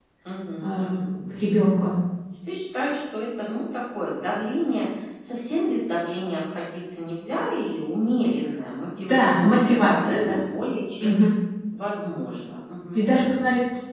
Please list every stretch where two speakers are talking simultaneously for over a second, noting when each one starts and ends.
9.1-10.4

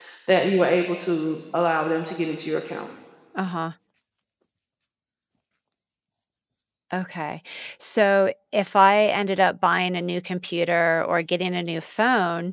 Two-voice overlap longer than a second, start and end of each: none

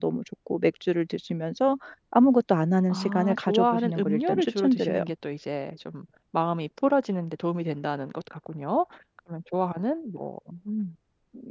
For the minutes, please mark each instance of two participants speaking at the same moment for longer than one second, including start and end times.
2.9-5.0

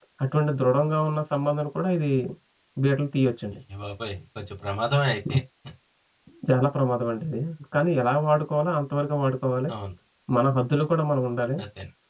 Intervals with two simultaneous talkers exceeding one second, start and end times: none

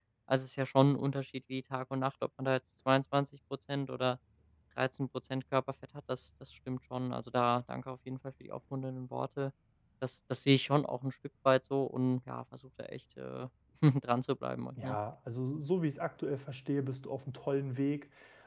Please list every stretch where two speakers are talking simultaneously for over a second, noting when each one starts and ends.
none

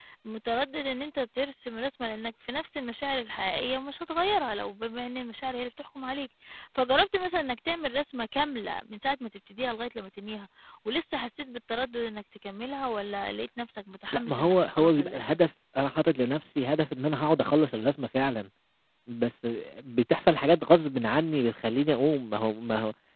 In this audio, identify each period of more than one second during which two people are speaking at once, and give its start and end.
14.1-15.4

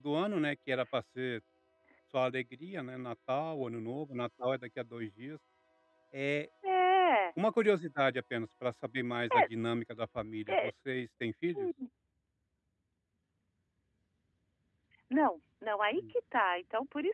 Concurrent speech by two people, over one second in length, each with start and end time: none

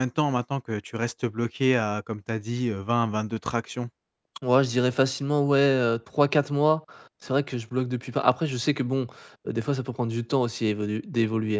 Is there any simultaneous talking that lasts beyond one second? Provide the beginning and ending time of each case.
none

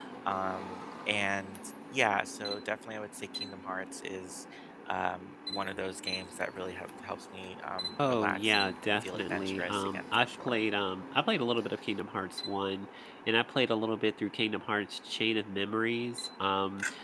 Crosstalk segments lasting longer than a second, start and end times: 8.1-10.6

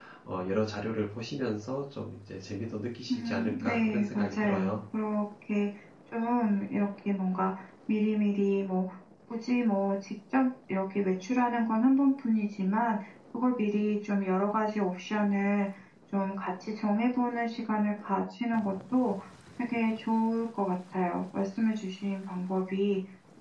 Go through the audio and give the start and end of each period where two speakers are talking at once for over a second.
3.1-4.7

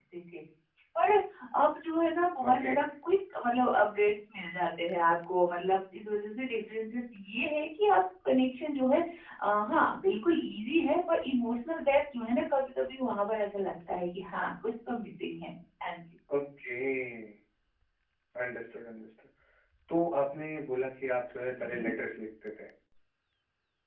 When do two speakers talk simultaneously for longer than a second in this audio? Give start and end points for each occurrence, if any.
none

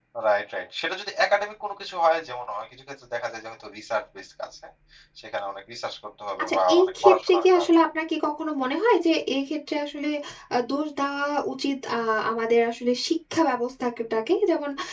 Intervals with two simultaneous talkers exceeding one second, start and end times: 6.4-7.7

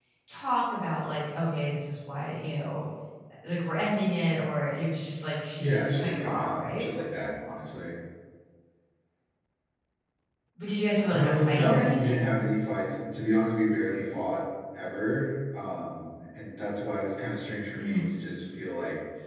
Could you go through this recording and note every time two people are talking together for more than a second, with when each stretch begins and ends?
5.6-6.9, 11.1-12.3

